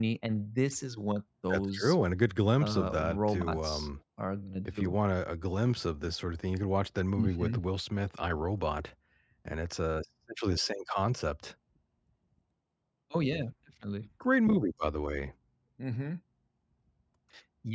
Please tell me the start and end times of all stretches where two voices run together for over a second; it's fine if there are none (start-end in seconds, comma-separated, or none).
2.6-3.9